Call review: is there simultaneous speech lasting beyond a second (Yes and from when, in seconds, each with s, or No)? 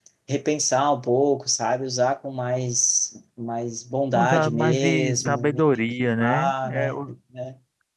Yes, from 4.1 s